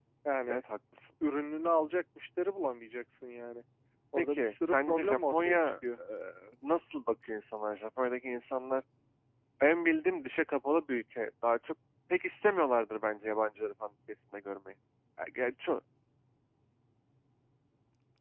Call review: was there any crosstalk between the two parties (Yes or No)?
Yes